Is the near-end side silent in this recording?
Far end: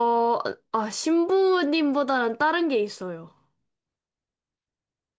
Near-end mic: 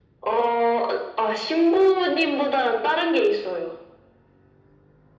Yes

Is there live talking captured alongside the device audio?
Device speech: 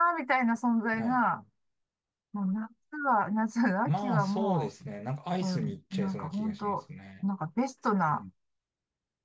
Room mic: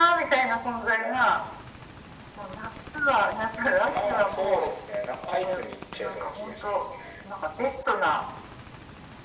No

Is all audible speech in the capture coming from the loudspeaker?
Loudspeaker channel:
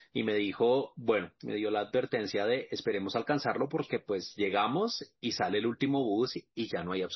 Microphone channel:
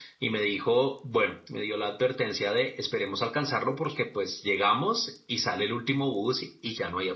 Yes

